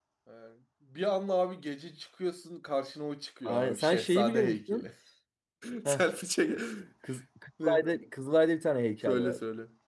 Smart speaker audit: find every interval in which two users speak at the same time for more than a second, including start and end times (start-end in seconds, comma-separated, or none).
3.5-4.9